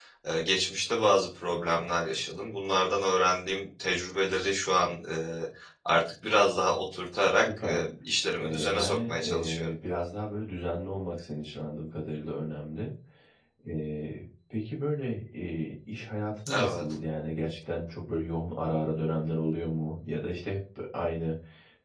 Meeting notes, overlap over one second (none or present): present